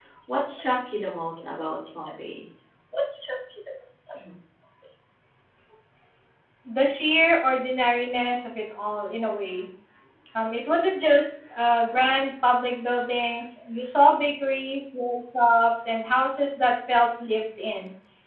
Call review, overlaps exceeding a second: none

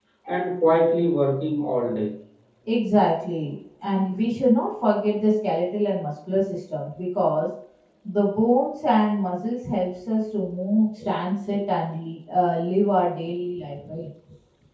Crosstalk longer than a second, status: none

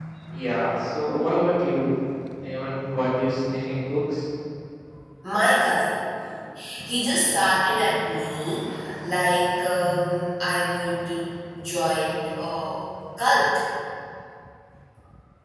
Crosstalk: none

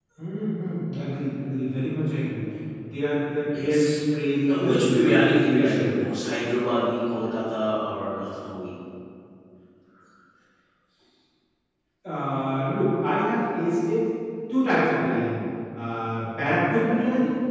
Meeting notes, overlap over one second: present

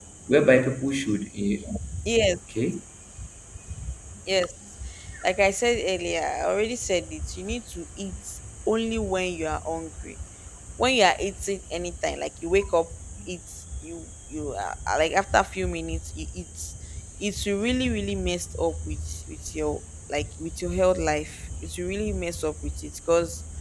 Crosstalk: none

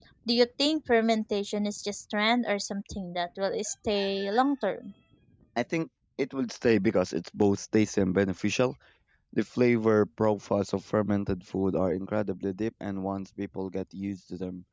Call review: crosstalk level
none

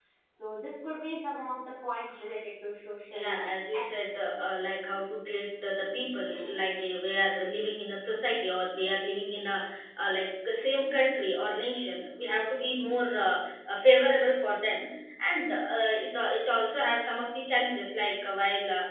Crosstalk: present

